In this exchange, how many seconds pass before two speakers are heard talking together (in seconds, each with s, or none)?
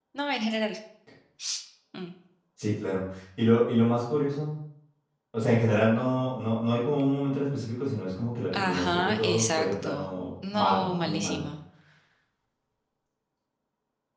8.5 s